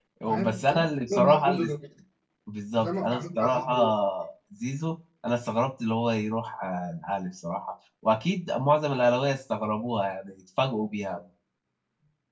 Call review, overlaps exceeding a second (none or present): present